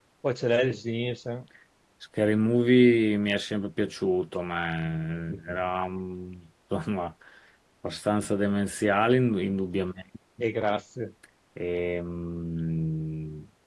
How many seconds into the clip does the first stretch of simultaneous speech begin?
none

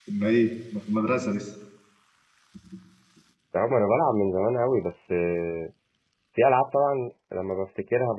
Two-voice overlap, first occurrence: none

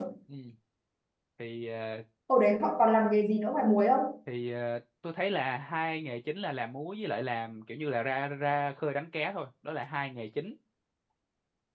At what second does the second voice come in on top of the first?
none

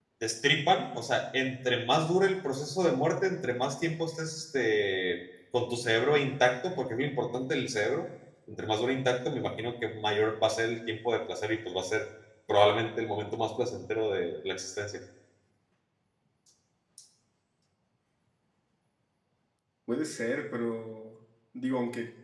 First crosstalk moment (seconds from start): none

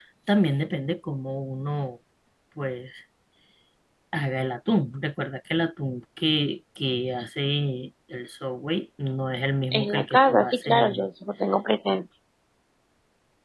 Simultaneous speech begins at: 9.7 s

